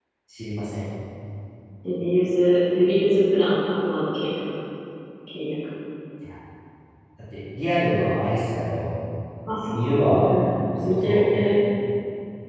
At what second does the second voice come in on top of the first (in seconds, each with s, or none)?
9.7 s